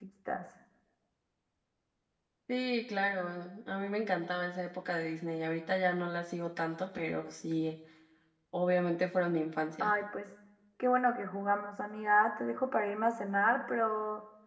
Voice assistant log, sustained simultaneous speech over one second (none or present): none